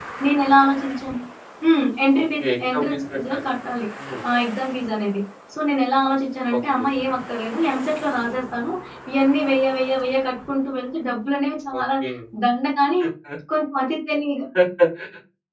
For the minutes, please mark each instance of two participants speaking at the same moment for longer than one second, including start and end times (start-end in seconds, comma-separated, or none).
2.2-3.4